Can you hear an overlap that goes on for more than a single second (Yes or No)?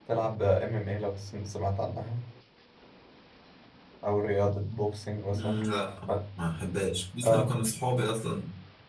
No